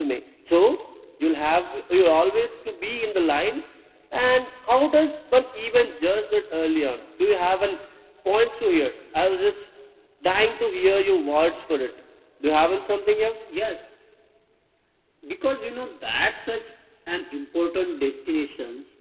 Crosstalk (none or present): none